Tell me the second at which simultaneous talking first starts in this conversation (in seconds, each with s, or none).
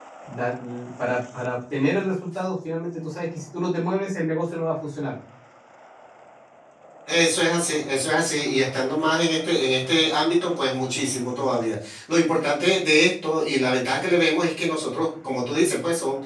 none